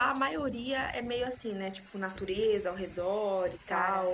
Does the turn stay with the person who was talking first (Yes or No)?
No